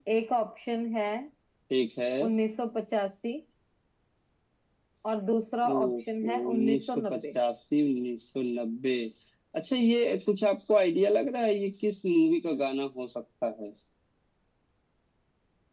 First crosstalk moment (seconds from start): 5.7 s

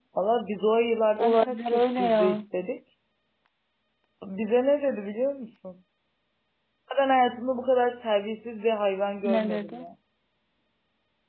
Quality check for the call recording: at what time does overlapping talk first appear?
1.2 s

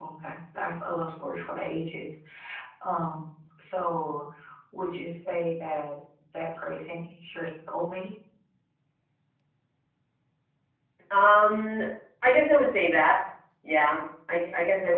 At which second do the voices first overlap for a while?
none

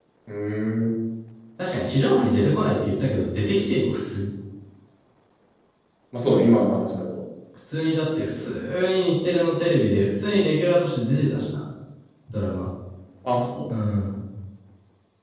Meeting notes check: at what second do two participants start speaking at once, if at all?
none

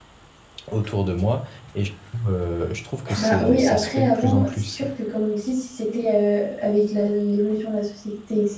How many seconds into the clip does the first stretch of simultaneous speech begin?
3.2 s

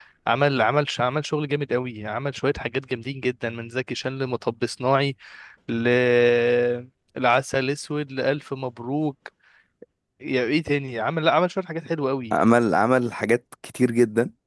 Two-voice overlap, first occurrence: none

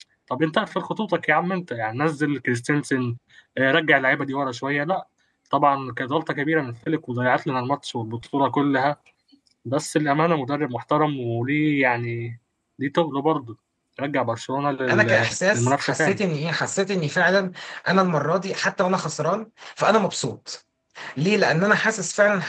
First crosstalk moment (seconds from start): 14.9 s

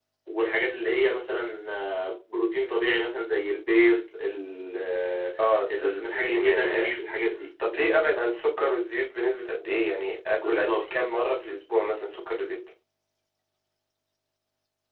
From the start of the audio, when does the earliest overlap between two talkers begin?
5.8 s

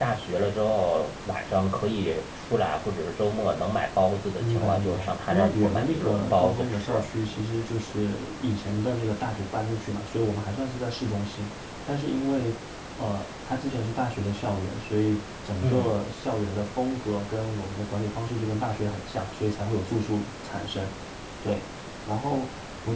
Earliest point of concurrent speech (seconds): 4.4 s

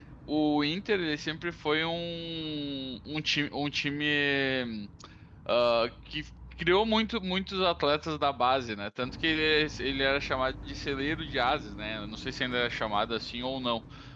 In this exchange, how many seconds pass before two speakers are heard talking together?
none

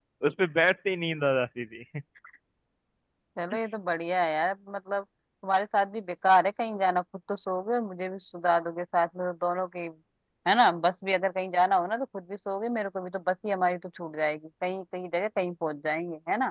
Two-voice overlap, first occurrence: none

